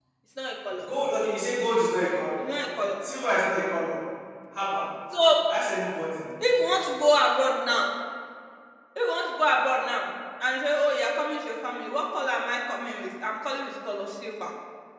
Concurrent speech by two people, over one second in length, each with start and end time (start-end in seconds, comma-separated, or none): none